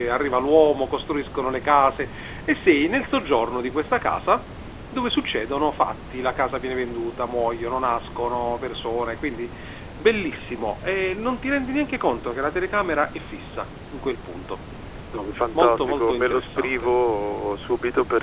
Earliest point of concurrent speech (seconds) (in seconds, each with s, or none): 15.5 s